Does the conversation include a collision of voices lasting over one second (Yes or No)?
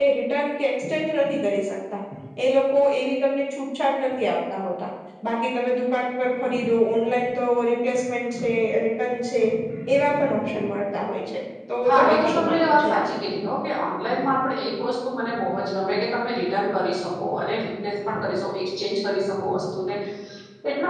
Yes